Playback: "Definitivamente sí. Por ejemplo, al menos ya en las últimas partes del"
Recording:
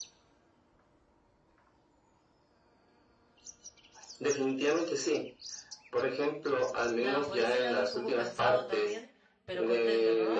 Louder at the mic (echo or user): echo